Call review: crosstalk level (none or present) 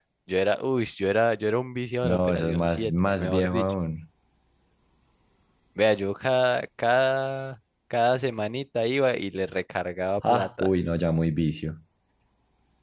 present